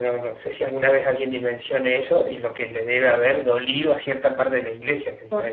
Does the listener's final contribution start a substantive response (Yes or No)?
Yes